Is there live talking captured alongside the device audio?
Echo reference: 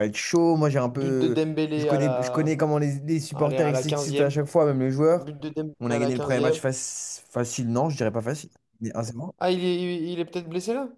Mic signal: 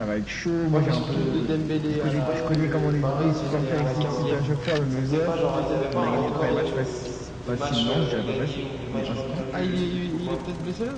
Yes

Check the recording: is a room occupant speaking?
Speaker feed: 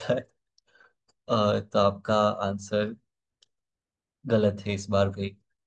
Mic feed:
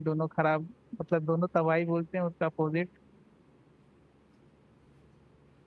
Yes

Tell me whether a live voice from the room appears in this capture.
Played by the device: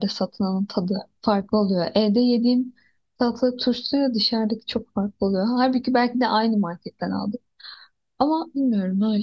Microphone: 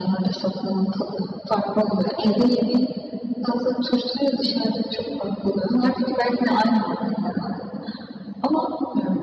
No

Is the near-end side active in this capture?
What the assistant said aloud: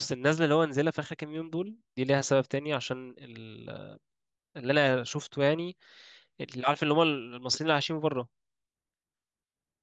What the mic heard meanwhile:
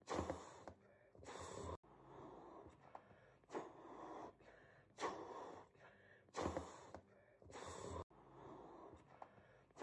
No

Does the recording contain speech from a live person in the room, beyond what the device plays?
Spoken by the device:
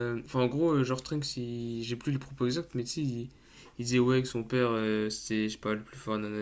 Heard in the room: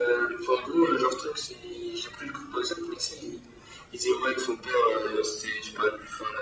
No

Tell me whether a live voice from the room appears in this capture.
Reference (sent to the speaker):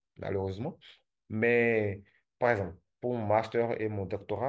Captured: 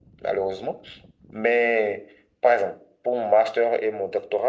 No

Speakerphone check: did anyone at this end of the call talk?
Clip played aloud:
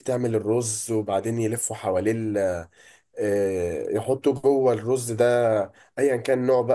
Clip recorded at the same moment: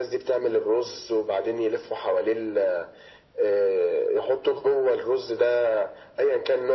No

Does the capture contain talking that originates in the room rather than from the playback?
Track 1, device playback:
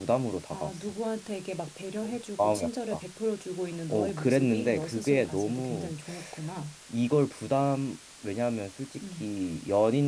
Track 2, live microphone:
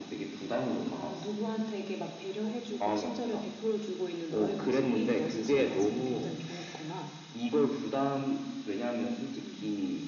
No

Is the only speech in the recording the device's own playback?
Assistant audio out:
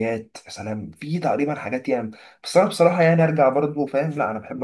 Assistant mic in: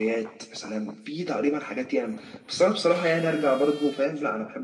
Yes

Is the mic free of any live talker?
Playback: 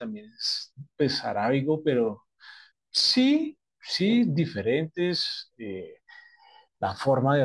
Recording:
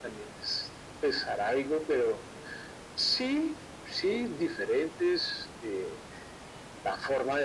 Yes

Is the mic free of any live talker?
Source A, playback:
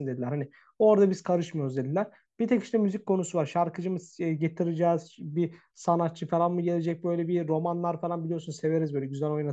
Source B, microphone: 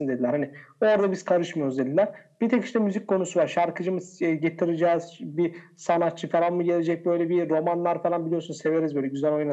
Yes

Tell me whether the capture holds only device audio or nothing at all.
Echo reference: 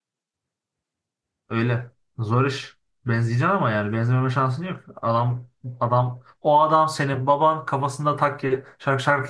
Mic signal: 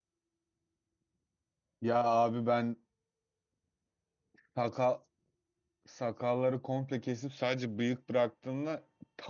No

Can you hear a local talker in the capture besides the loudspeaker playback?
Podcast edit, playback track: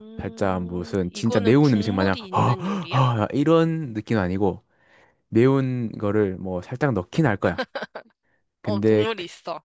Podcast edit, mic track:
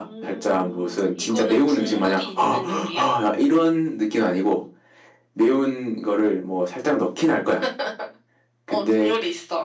No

